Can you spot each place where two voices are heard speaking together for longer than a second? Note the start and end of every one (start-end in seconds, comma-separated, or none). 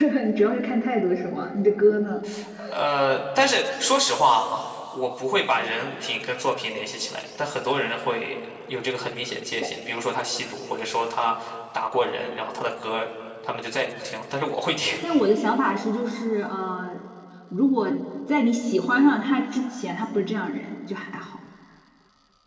none